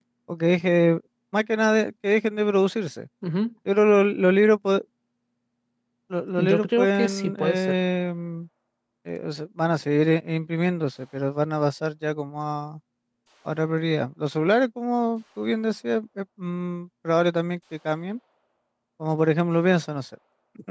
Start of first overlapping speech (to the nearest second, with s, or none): 6 s